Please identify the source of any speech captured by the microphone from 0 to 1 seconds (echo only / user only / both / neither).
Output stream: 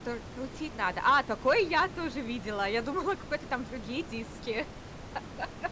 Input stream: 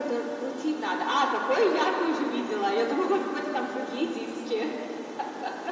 echo only